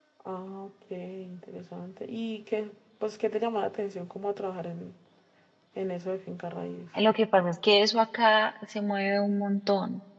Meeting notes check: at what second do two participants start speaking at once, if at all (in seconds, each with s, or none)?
none